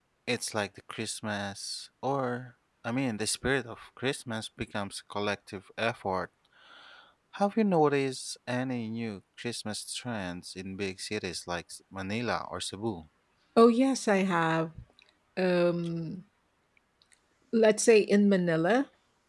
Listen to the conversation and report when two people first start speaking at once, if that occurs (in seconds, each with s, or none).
none